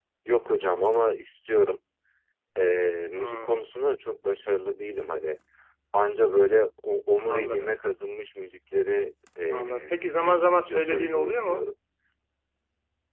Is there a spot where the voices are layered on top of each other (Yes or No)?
Yes